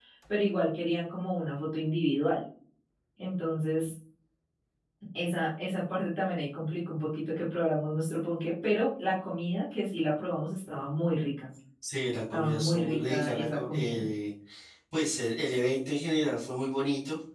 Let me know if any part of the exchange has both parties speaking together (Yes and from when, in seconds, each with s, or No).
Yes, from 12.3 s